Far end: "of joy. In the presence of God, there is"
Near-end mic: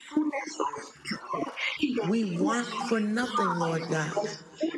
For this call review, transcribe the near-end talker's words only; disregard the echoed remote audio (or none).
we want for nothing, Lord God.